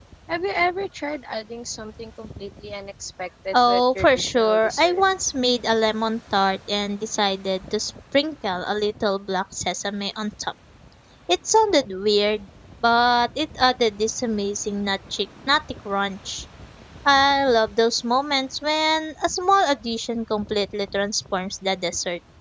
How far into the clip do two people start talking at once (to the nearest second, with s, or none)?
4 s